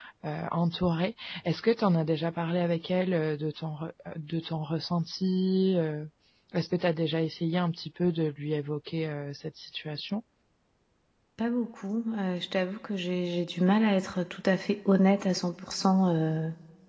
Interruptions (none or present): none